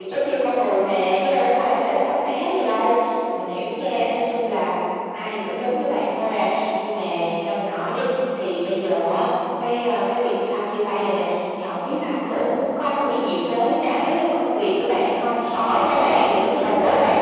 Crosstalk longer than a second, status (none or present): present